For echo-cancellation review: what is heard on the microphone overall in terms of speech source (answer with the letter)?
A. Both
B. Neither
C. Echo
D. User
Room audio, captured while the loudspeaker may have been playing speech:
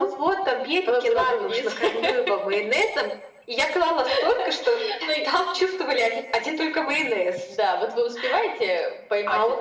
C